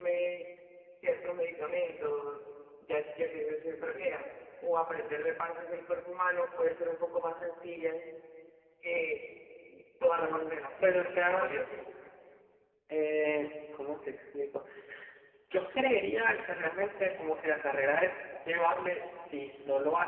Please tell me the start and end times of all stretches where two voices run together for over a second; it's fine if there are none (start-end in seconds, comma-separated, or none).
10.1-11.6